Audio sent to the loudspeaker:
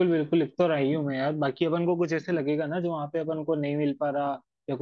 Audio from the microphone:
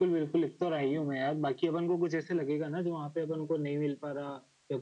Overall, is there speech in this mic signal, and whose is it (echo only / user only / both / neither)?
echo only